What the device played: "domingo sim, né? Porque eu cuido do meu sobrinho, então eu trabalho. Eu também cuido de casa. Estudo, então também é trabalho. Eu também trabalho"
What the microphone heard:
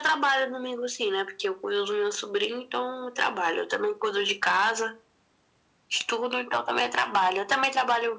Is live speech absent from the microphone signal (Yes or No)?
Yes